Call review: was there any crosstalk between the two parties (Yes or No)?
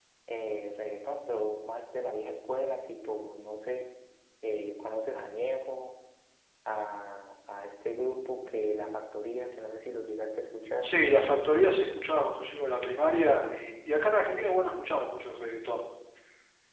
No